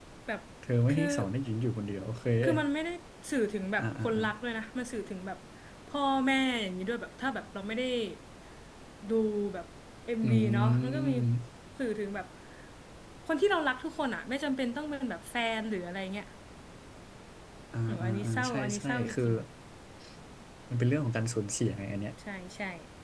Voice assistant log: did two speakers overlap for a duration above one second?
Yes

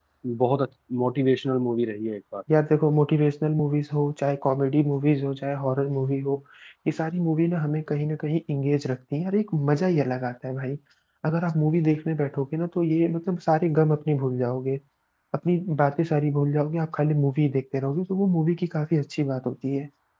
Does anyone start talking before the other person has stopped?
No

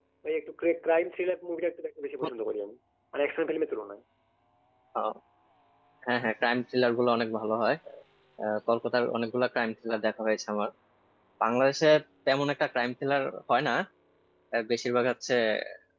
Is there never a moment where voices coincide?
Yes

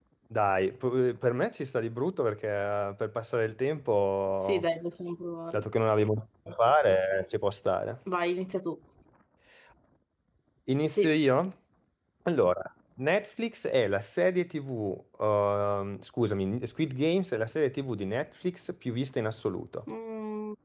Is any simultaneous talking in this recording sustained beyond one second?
No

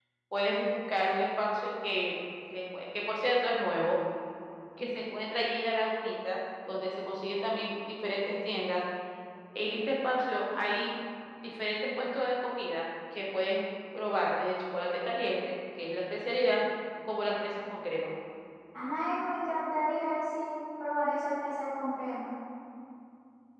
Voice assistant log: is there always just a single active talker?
Yes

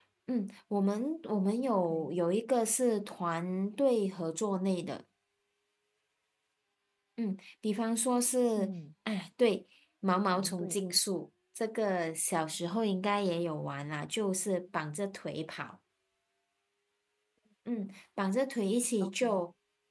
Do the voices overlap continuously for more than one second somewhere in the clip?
No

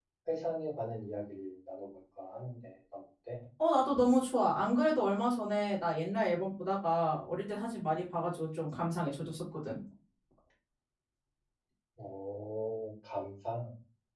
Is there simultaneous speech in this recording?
No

